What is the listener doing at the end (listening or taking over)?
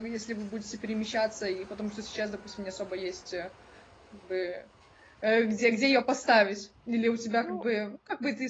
listening